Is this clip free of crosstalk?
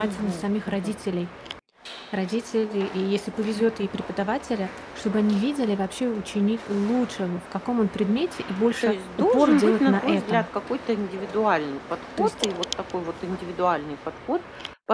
No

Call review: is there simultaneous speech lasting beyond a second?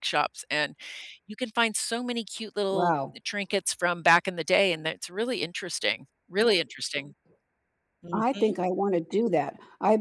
No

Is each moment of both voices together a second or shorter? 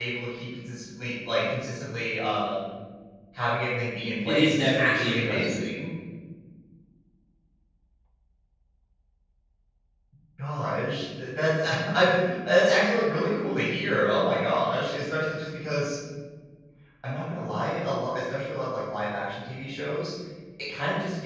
No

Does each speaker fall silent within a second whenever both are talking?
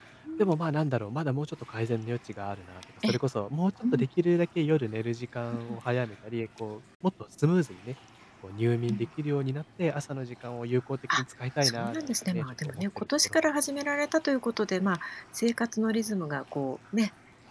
No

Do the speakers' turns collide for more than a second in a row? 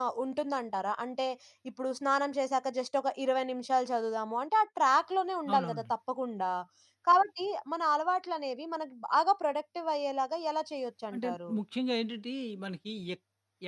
No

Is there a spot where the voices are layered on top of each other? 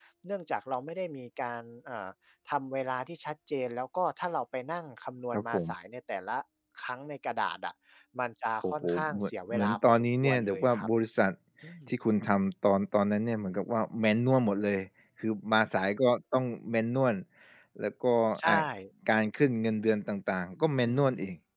Yes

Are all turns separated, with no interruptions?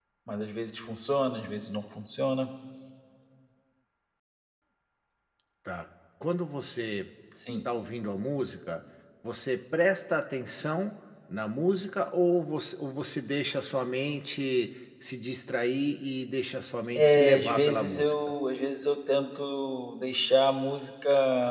No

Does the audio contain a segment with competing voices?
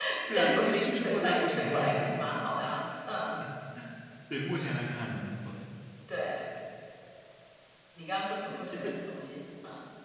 Yes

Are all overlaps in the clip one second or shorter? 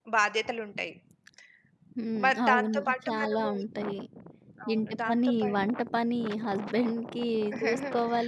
No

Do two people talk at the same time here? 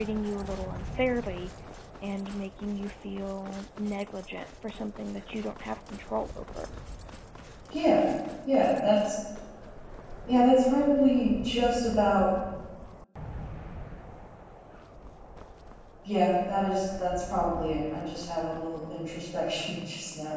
No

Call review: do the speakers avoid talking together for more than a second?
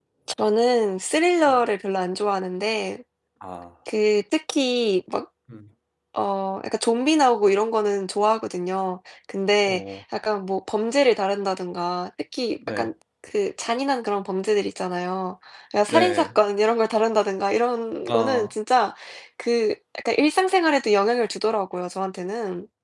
Yes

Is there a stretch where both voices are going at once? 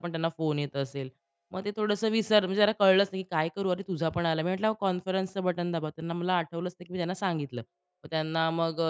No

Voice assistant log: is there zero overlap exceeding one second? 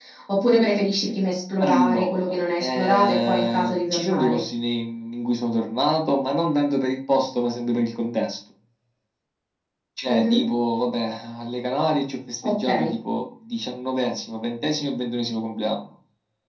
No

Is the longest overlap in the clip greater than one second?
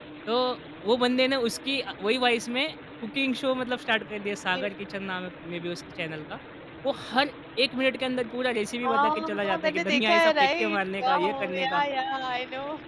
Yes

